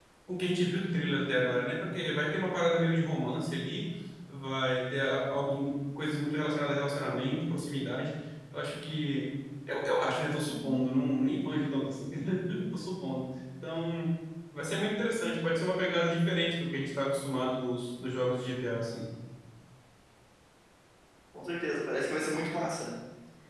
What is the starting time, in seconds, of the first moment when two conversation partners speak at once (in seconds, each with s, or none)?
none